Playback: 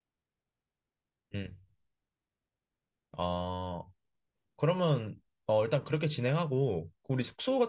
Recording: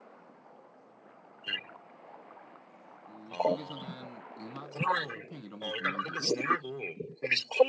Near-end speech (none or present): present